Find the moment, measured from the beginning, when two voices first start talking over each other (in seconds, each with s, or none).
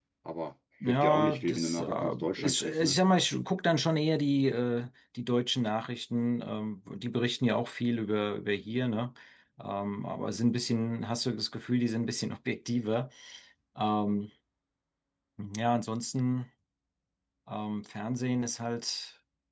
0.8 s